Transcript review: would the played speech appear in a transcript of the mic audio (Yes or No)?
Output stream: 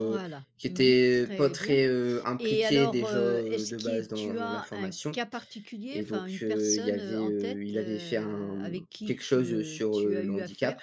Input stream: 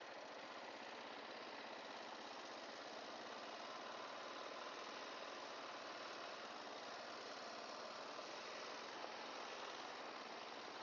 No